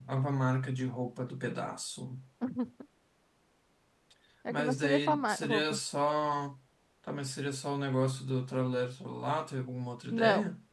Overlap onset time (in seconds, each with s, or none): 4.5 s